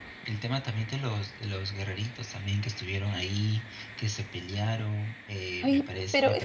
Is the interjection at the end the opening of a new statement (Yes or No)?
Yes